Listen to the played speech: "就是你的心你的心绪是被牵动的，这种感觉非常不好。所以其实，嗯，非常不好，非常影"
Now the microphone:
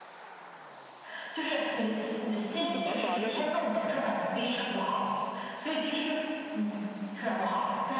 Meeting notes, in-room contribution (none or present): present